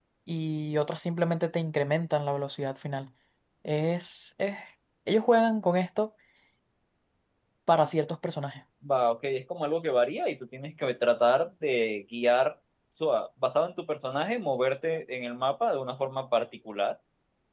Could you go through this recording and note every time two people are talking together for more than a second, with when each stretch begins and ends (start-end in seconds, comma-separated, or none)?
none